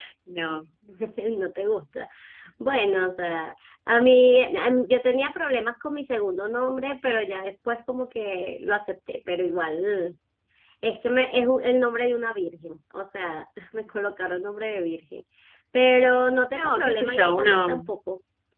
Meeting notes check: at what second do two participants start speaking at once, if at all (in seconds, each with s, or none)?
16.5 s